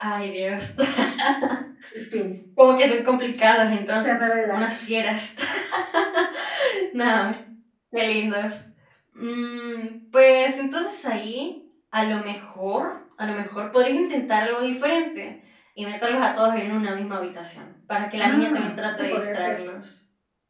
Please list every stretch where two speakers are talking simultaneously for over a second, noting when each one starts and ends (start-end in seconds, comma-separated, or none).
18.2-19.6